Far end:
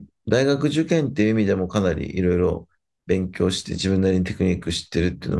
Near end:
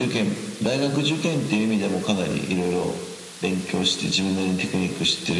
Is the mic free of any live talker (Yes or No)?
Yes